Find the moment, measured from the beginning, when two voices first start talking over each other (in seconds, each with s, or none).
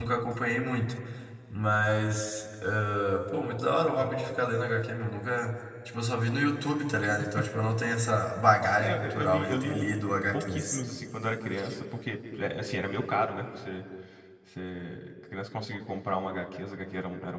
8.8 s